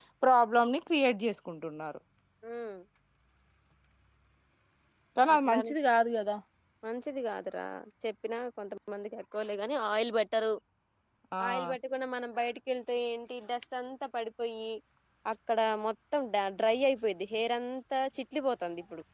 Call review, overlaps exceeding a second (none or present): none